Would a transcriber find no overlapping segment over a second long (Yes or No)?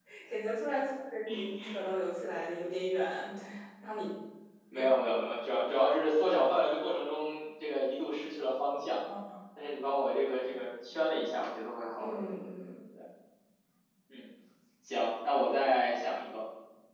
Yes